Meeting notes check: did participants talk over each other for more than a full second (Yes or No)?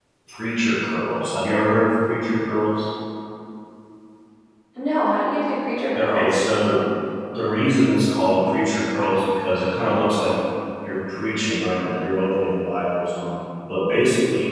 No